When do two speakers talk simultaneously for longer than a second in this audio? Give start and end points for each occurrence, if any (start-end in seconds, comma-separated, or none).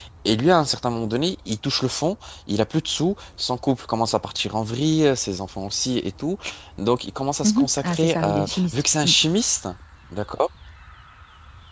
7.4-9.1